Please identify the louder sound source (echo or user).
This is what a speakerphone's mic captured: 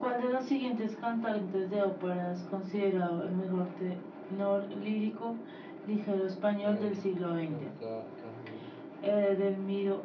echo